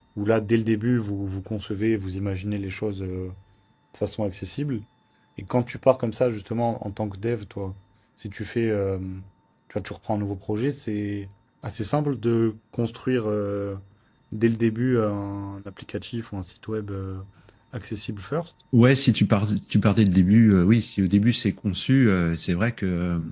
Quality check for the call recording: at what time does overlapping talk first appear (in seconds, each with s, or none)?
none